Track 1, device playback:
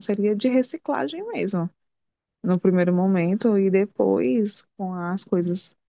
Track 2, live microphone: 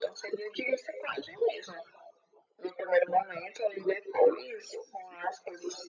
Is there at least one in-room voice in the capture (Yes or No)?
No